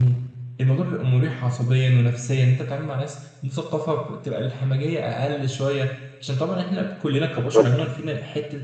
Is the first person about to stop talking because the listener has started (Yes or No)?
No